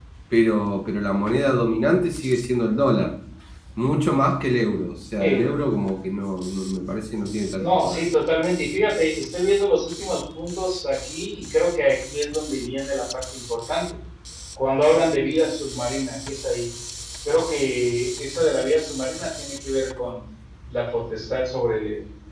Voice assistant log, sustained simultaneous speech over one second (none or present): none